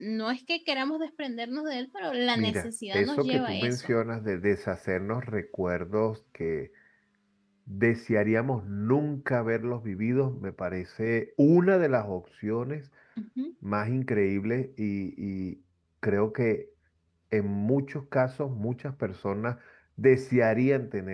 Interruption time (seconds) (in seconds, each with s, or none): 2.4 s